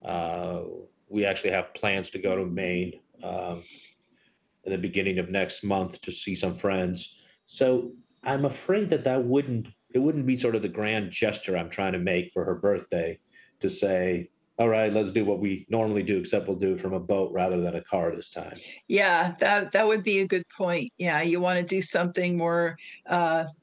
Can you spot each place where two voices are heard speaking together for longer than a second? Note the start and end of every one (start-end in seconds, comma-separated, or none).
none